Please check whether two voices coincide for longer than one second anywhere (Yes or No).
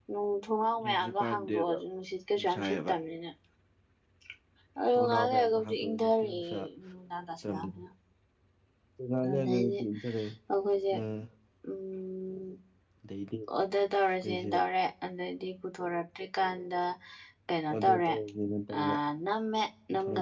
Yes